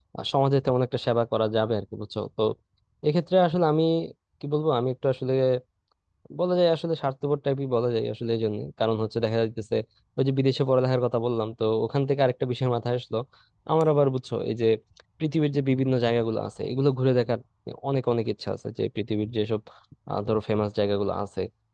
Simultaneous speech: No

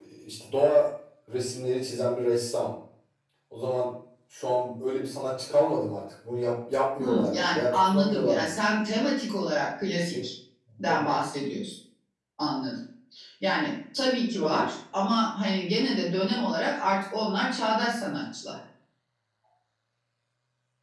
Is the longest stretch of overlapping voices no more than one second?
No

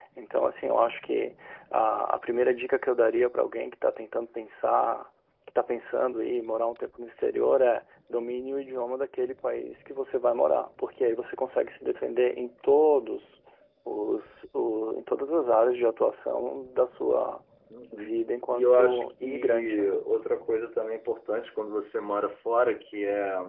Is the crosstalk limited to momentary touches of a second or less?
No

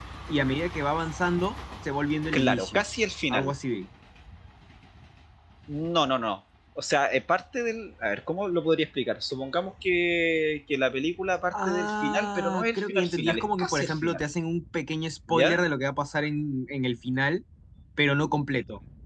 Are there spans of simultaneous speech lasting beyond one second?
Yes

